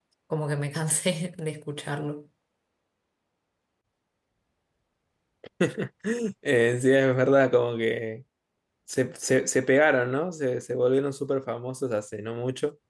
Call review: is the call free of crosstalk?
Yes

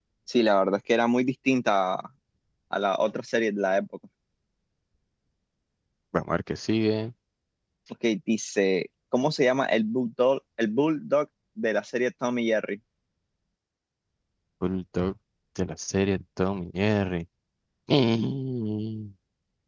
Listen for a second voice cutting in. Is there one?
No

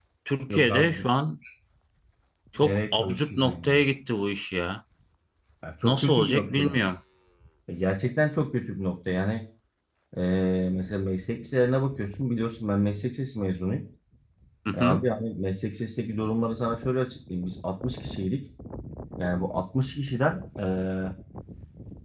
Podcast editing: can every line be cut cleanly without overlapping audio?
No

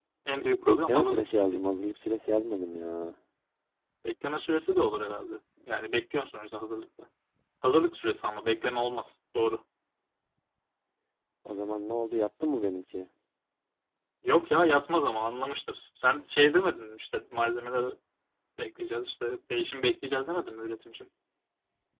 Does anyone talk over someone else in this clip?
Yes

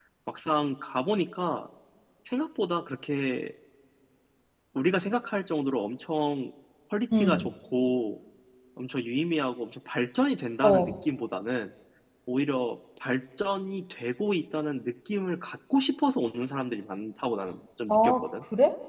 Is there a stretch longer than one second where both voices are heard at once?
No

